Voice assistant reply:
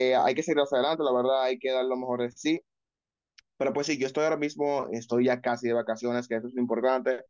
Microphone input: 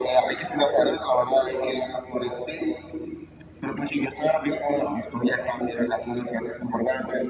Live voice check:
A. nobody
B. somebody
A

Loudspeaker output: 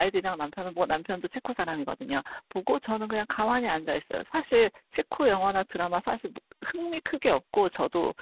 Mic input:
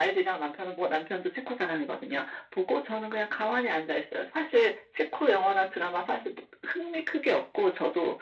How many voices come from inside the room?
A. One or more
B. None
B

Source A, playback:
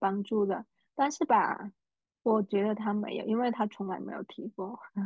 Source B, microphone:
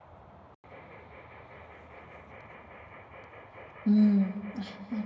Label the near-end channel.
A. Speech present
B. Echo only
A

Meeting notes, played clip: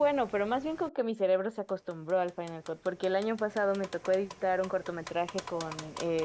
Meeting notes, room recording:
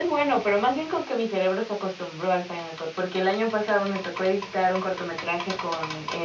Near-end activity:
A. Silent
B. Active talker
A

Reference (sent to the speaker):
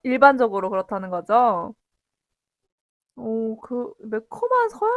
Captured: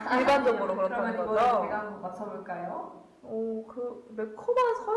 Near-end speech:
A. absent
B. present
B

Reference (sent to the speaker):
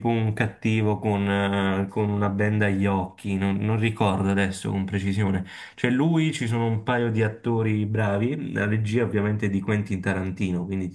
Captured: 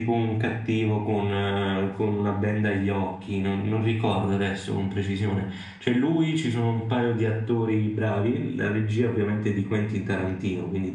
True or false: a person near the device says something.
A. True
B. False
B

